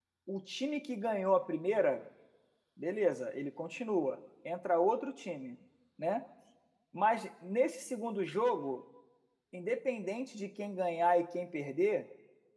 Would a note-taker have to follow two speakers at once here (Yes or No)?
No